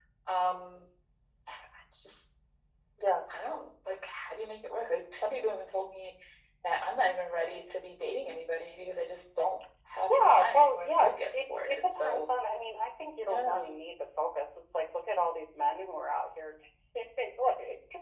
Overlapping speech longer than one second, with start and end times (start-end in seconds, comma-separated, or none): 10.1-12.3